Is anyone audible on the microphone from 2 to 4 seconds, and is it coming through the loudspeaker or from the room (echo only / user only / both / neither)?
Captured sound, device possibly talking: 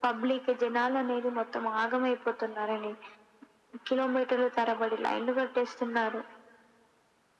echo only